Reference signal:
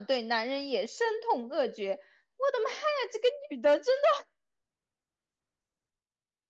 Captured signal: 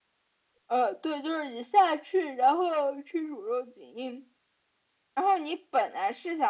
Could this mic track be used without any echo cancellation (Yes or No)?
Yes